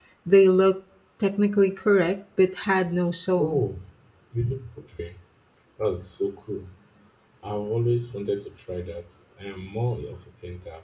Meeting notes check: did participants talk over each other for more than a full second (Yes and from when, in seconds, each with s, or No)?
No